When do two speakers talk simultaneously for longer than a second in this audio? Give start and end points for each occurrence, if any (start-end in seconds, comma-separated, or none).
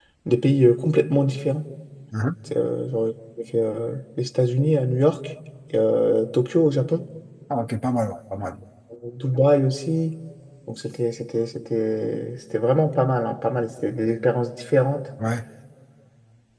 none